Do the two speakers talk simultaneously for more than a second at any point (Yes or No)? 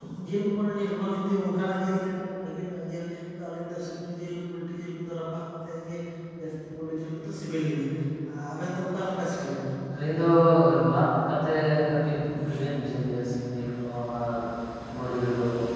No